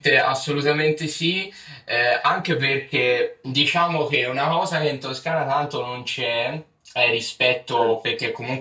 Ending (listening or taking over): listening